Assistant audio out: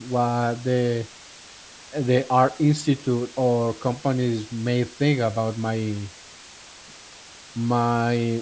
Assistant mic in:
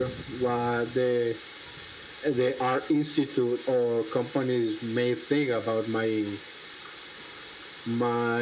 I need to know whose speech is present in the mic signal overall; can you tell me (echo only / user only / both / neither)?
echo only